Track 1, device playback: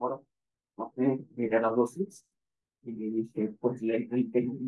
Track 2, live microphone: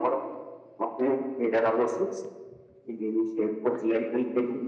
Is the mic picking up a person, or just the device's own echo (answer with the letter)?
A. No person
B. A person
A